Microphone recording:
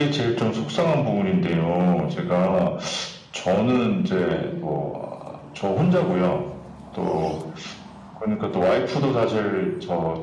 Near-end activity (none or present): present